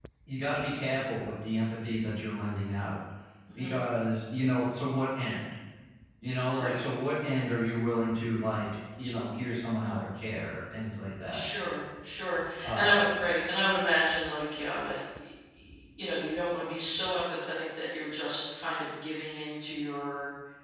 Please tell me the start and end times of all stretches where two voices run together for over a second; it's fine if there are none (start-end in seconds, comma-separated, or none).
none